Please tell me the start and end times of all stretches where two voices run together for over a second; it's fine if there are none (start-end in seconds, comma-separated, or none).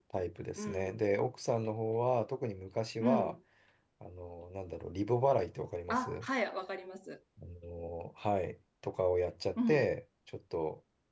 none